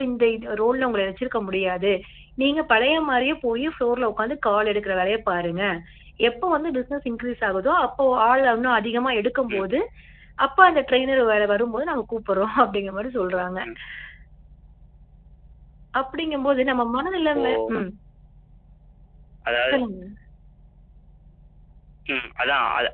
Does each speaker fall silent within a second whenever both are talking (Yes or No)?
Yes